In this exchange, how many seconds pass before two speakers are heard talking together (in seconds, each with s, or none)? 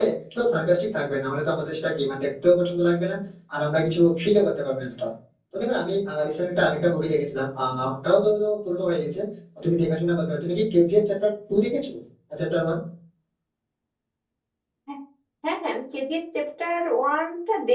none